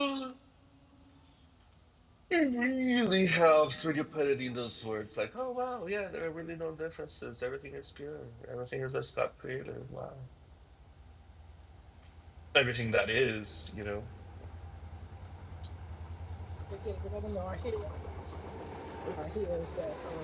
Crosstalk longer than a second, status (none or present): none